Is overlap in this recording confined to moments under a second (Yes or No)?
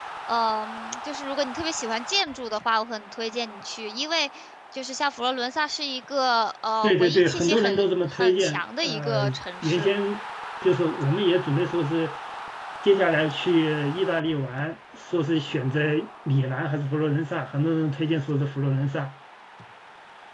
No